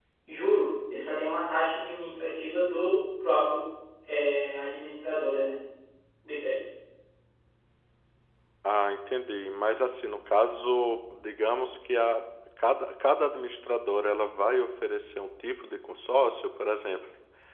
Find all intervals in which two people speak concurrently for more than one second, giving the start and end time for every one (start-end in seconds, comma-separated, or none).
none